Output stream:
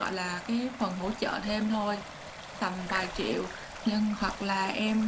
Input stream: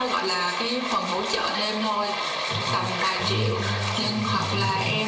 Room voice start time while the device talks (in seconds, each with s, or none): 2.5 s